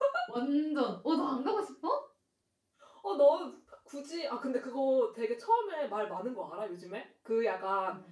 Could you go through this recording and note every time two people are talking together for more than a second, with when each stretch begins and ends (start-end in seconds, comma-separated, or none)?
none